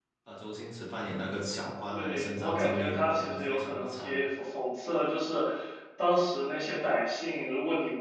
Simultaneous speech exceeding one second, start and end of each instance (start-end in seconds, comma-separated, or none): 1.9-4.1